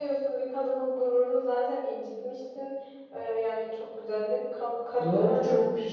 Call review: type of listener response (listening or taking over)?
taking over